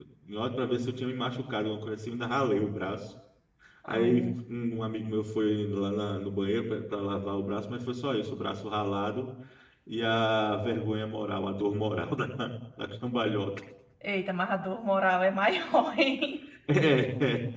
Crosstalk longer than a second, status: none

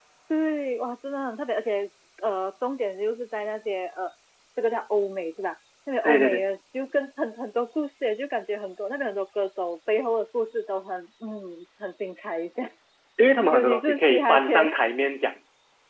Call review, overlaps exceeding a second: present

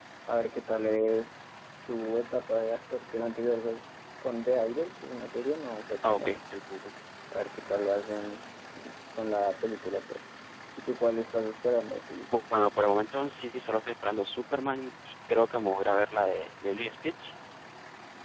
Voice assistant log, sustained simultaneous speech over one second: none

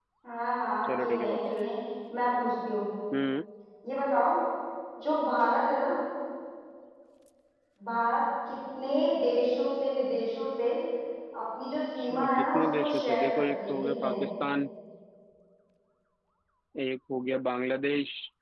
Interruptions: present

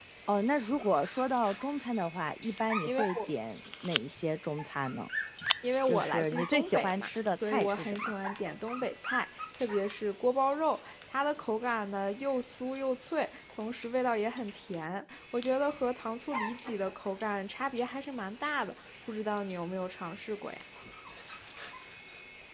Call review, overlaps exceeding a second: present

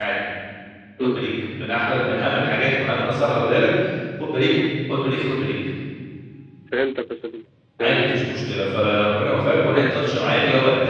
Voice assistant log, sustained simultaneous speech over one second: present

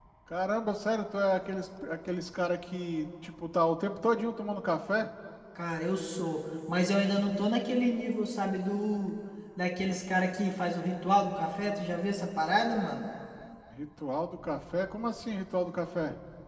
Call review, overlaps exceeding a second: none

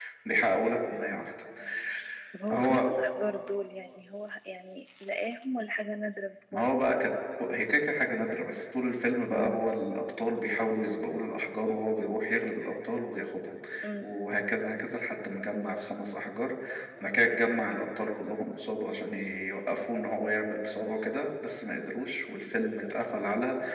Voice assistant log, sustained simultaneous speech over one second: none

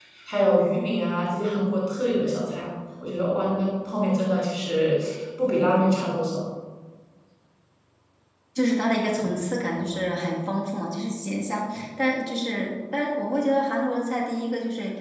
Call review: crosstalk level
none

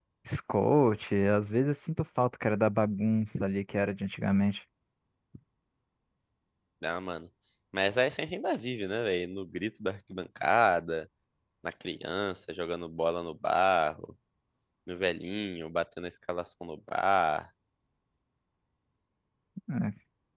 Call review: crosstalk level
none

